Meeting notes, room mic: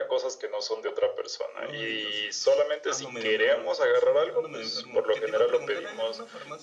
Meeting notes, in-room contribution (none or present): present